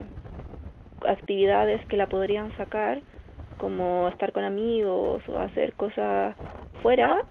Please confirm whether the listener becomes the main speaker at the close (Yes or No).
No